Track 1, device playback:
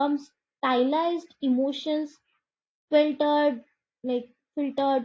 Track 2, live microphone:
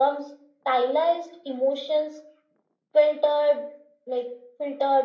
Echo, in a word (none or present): present